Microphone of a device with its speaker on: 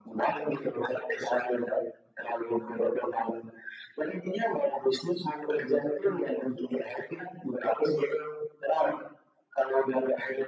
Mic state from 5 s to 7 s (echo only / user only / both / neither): echo only